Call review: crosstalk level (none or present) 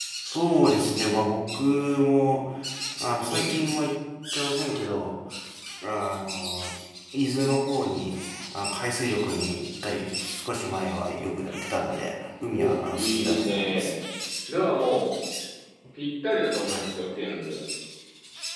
present